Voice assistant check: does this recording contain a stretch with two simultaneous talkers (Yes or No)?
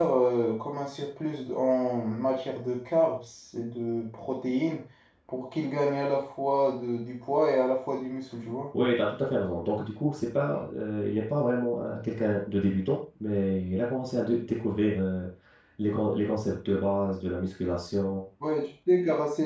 No